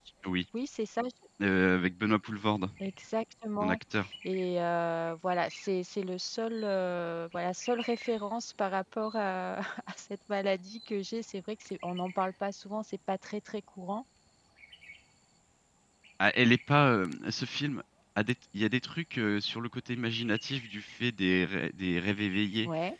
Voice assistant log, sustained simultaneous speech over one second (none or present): none